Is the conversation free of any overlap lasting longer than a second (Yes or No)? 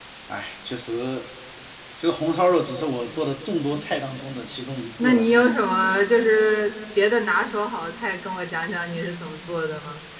Yes